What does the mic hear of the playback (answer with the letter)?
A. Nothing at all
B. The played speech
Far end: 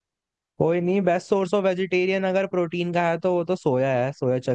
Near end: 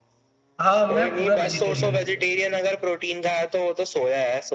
B